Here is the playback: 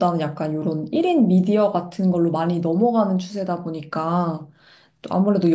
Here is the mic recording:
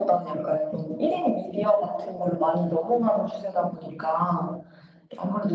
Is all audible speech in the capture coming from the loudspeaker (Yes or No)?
Yes